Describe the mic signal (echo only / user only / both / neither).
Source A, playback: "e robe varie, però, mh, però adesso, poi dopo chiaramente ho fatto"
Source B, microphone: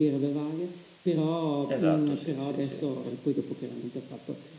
both